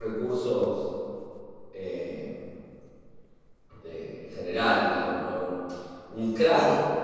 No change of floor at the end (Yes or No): Yes